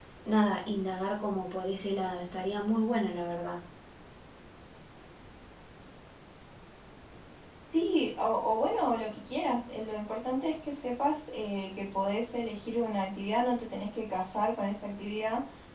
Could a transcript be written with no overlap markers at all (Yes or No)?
Yes